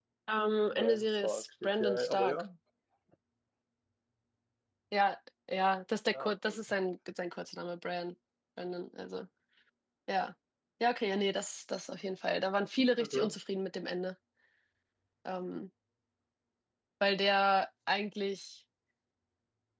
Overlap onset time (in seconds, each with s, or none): 0.7 s